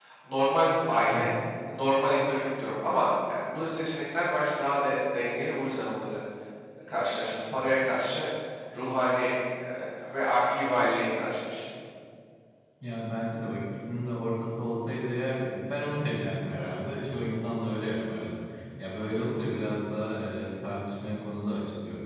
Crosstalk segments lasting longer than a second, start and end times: none

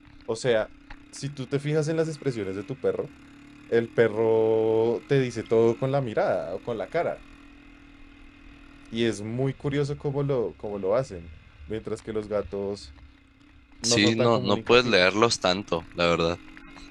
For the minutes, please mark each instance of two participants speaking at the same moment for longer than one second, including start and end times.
13.8-15.1

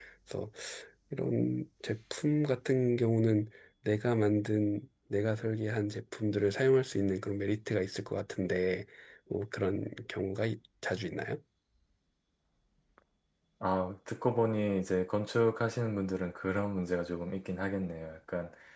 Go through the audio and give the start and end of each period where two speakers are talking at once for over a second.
none

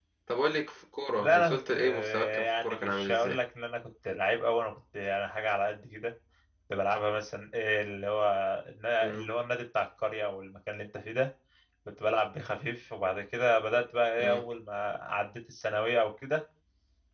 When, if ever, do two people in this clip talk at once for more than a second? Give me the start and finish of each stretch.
1.2-3.4

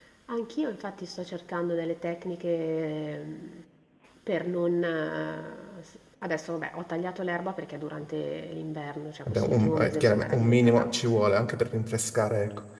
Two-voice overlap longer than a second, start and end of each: 9.3-10.9

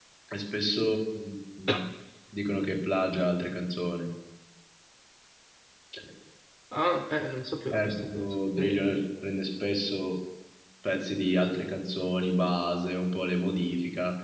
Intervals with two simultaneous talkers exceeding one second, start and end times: 7.7-9.0

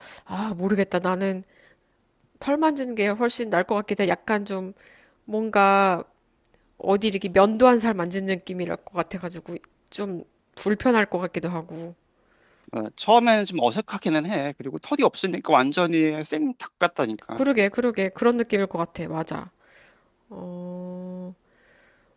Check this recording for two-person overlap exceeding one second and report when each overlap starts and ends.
none

